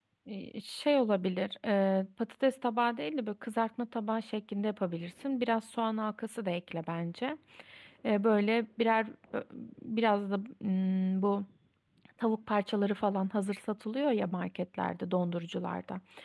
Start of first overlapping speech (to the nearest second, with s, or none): none